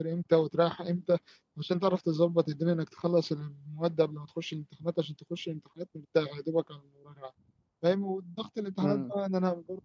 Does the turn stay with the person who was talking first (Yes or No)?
Yes